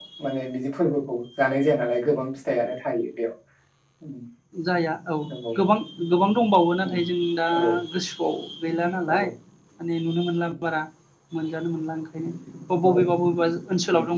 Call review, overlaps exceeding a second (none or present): none